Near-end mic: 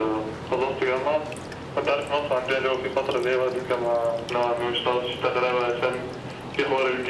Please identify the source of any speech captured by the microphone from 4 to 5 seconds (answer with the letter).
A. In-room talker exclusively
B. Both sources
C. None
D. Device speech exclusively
D